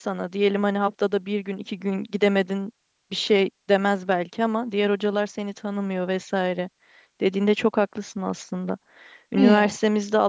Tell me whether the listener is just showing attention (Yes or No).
Yes